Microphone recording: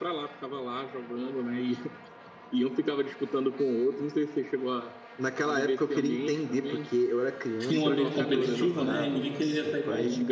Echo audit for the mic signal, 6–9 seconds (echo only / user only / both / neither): both